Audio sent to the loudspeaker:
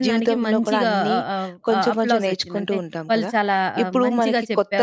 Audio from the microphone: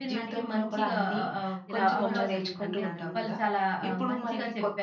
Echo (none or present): present